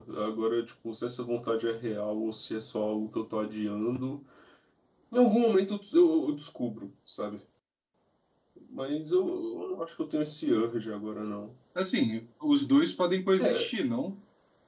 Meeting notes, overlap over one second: none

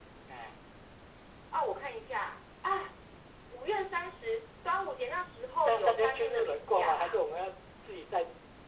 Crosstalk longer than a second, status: present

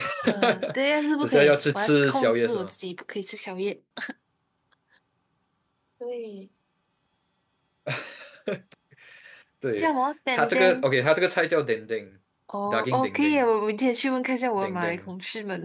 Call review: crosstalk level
present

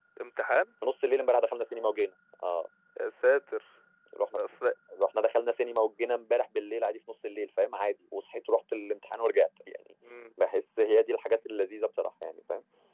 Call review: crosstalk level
none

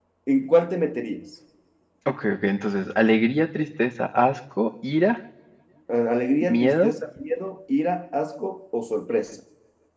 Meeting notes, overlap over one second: none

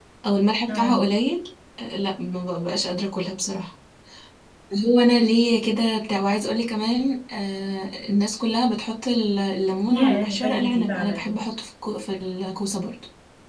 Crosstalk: present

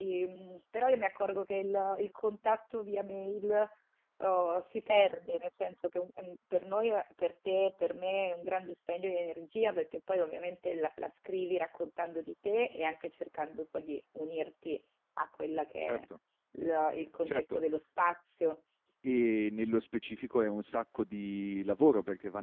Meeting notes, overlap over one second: none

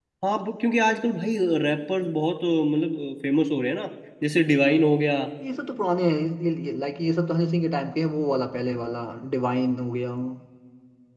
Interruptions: none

